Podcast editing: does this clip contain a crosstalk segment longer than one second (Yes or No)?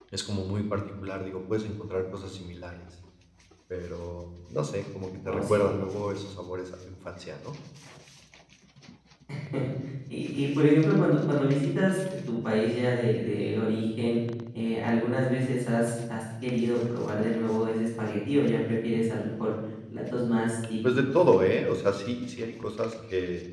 No